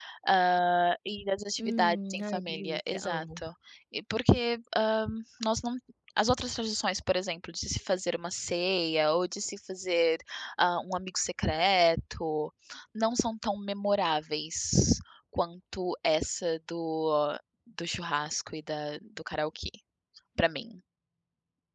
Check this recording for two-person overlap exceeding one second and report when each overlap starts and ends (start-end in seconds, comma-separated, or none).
1.6-3.4